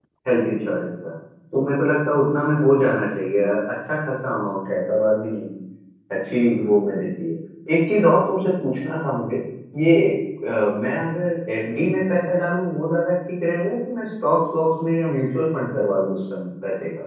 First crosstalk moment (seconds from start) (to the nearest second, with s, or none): none